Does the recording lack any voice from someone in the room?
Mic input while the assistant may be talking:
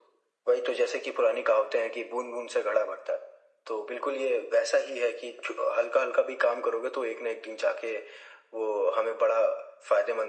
Yes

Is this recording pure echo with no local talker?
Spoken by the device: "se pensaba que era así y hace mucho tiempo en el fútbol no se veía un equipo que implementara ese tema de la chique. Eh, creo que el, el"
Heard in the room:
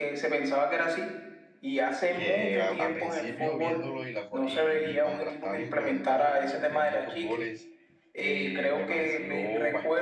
No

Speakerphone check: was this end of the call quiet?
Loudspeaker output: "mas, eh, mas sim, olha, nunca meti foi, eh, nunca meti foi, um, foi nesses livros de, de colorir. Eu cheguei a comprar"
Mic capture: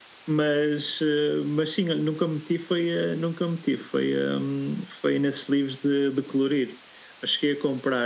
Yes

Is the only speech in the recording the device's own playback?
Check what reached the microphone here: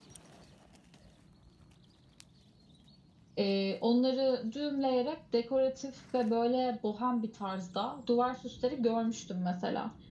No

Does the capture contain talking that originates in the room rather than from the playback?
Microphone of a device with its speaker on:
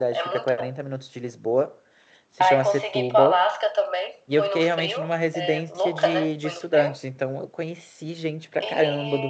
Yes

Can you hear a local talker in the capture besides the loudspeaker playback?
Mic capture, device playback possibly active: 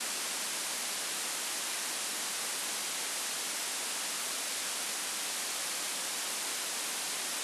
No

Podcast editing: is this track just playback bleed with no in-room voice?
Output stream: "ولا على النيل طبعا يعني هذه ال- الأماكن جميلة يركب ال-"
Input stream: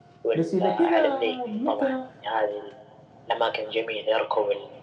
No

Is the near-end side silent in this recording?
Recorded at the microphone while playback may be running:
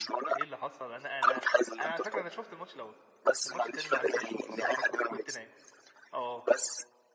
No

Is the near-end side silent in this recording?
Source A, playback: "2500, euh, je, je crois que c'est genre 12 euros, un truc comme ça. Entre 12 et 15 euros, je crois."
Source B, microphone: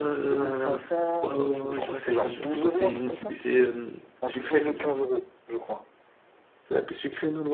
No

